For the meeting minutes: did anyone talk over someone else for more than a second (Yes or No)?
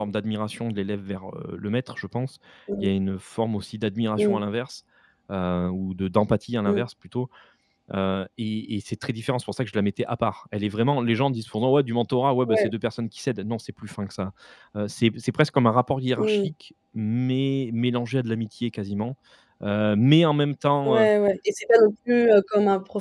No